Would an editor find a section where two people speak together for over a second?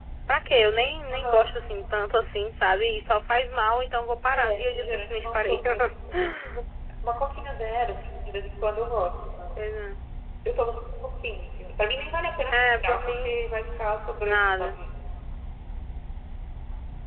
Yes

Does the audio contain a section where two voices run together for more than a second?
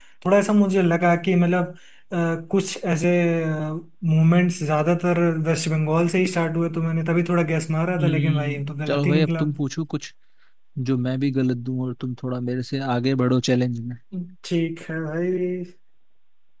Yes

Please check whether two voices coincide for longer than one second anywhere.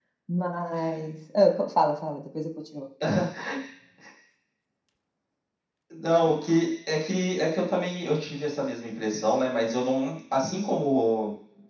No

